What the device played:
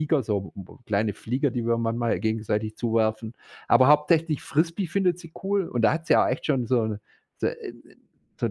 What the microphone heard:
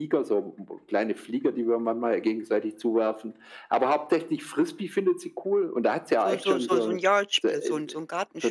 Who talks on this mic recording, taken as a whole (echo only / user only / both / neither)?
both